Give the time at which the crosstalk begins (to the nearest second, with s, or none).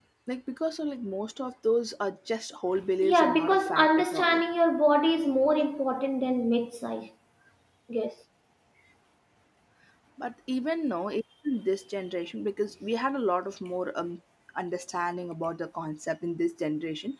3 s